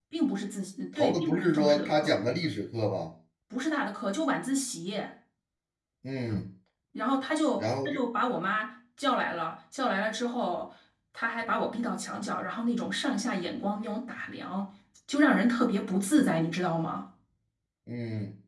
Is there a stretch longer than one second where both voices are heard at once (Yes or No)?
Yes